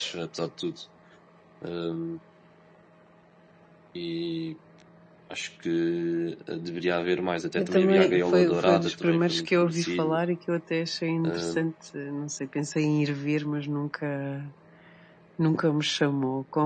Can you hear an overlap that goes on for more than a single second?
Yes, from 7.5 s

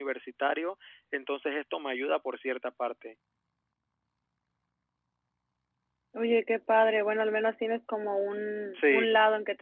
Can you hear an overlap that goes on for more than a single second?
No

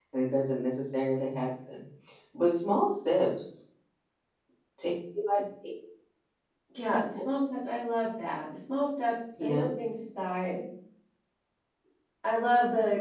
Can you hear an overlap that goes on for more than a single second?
No

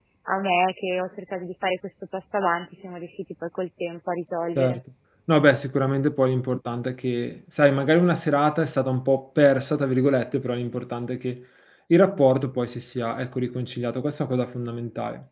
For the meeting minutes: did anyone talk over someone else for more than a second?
No

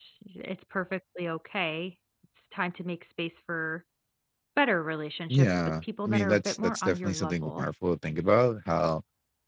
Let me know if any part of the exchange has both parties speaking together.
Yes, from 5.3 s

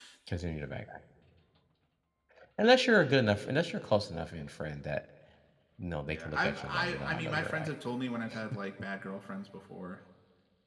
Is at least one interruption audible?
Yes, from 6.1 s

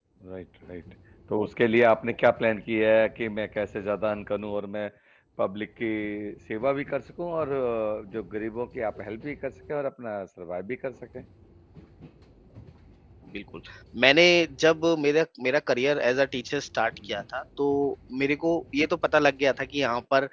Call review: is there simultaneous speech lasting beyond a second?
No

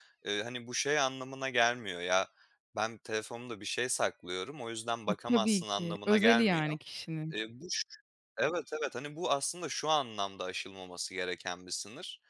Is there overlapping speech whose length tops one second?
Yes, from 5.3 s

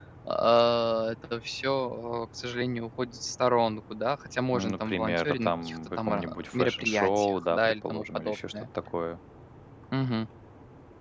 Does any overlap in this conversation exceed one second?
Yes, from 4.5 s

